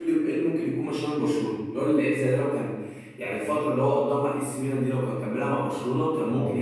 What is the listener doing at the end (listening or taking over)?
taking over